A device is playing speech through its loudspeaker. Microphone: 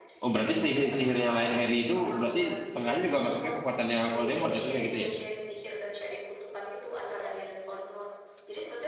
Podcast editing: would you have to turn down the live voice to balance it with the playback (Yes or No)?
Yes